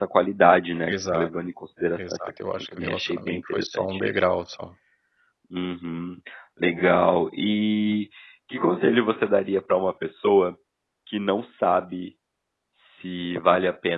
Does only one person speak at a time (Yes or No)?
No